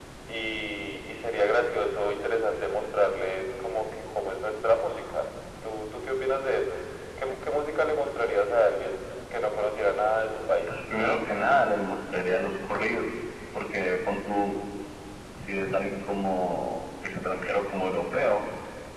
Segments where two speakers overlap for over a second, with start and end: none

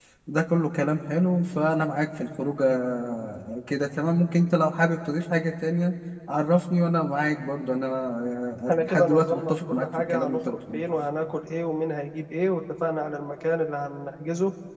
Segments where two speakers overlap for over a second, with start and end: 8.7-10.8

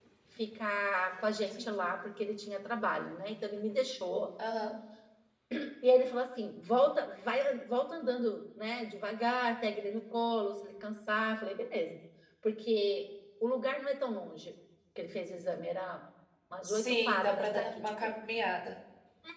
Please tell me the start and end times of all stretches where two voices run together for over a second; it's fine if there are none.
16.6-18.1

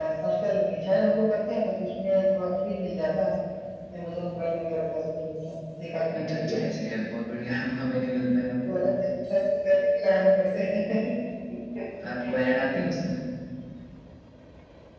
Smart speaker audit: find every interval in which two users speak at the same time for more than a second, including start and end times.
none

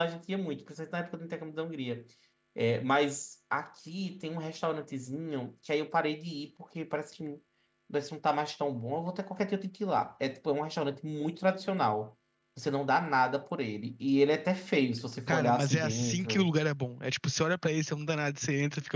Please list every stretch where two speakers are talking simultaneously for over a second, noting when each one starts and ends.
15.3-16.5

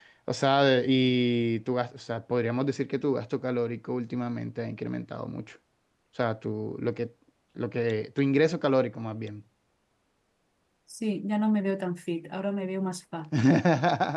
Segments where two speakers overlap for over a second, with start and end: none

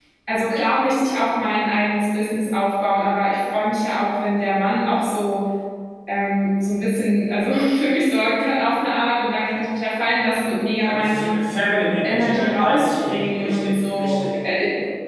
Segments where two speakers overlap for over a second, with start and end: 12.0-14.2

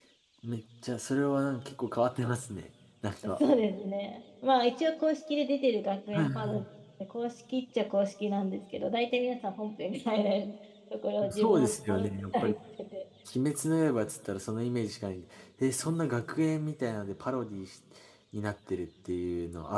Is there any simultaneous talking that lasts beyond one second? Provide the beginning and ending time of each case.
11.3-12.5

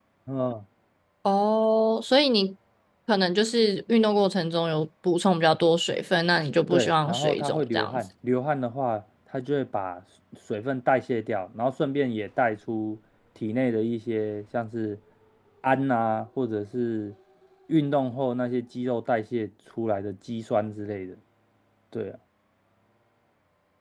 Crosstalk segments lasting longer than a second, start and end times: 6.7-8.0

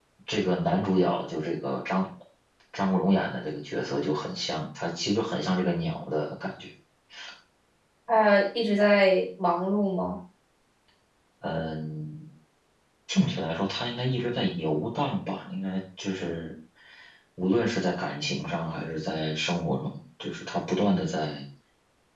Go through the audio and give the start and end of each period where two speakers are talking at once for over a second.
none

